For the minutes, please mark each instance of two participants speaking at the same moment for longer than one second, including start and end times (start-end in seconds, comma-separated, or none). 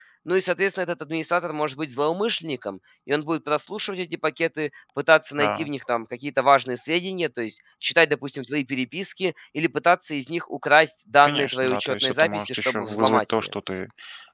11.2-13.5